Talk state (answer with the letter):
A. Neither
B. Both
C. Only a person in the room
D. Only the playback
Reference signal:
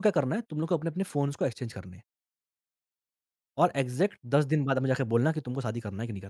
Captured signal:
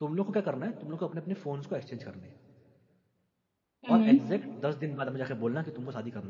B